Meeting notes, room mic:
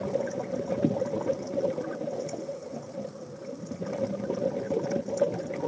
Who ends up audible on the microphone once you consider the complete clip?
neither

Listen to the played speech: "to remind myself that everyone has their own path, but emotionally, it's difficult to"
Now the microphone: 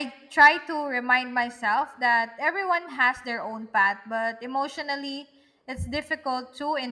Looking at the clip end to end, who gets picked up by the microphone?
echo only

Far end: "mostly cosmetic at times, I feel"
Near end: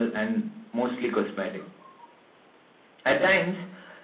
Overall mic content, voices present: echo only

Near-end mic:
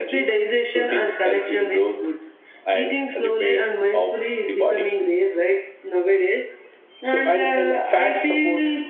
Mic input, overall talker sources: echo only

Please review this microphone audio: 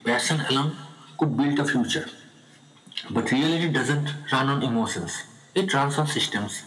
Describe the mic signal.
echo only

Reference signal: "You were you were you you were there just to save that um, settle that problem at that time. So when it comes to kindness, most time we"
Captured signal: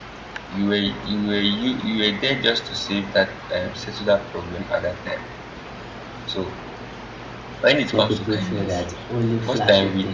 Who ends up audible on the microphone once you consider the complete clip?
both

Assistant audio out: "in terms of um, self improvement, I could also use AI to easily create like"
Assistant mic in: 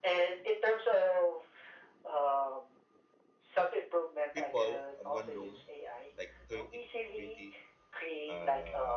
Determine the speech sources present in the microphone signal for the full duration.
both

